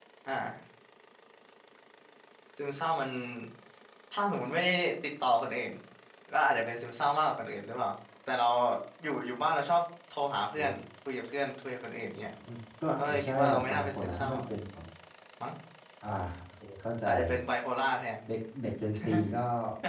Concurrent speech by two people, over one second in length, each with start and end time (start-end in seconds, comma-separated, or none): 13.0-14.4